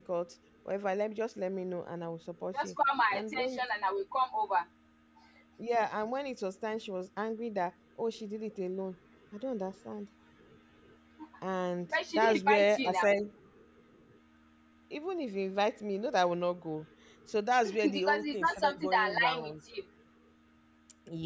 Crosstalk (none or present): present